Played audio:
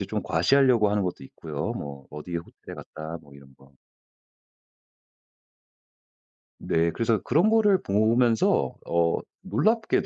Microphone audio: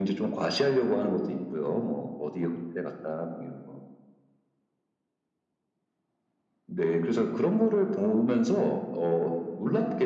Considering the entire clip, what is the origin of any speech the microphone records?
echo only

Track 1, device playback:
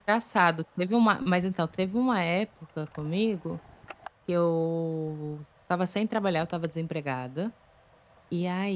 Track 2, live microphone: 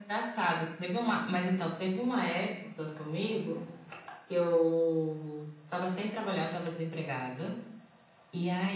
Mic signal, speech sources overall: echo only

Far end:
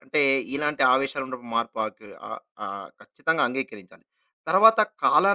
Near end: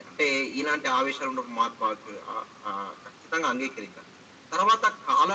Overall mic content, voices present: echo only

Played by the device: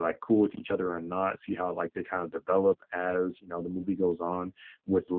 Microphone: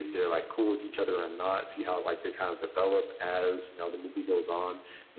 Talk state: echo only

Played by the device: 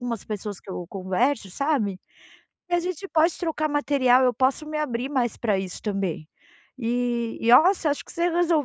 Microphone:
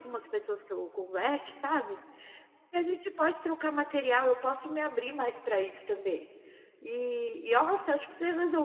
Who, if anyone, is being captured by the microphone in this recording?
echo only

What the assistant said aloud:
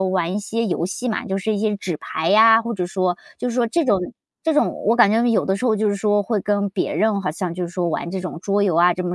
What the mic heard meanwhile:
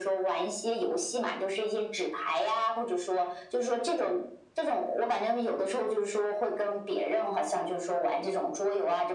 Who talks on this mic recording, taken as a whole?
echo only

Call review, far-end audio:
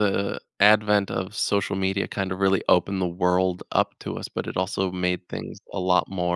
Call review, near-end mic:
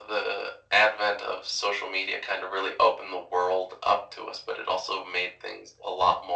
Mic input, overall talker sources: echo only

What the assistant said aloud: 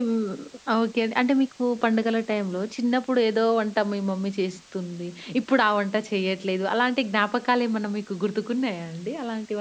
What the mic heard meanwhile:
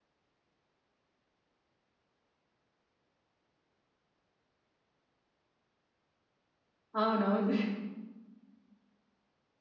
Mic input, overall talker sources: user only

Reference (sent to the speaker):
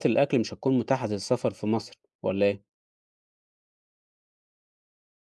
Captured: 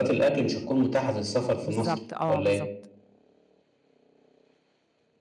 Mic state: both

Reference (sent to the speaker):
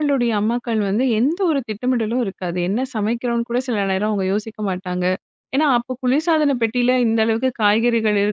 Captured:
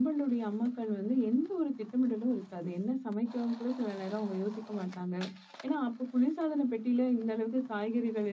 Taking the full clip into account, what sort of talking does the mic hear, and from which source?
echo only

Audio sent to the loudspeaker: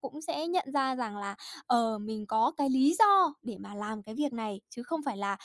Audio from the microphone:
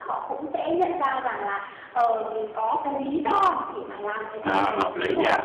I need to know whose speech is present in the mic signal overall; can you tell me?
both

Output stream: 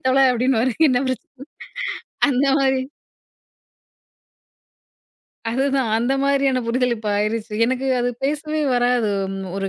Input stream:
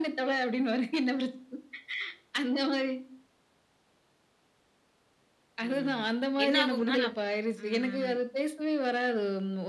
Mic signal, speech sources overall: both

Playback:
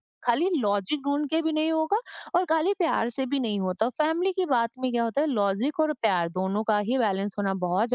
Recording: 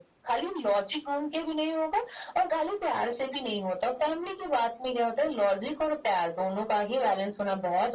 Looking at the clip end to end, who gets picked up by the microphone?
echo only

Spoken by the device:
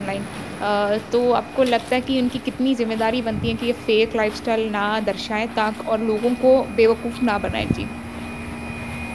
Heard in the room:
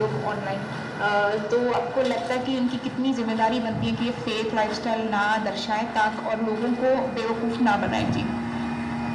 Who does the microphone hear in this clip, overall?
echo only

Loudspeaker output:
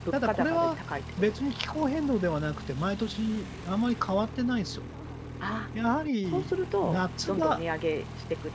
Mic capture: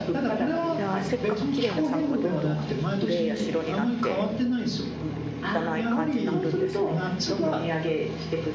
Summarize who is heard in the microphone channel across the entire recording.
both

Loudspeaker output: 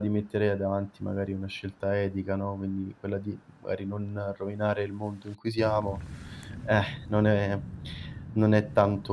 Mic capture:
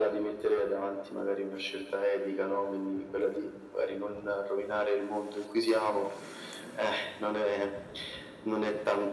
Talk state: echo only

